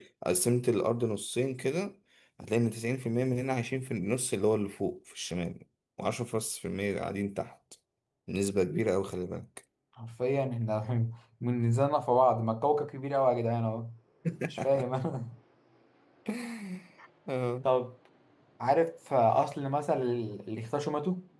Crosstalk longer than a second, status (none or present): none